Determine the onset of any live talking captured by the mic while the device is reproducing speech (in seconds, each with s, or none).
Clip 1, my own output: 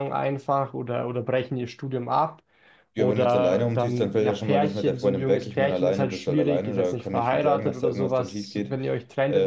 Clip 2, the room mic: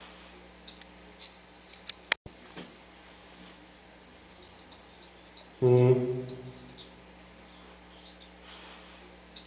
5.6 s